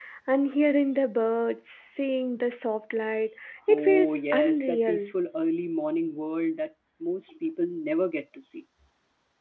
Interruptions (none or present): present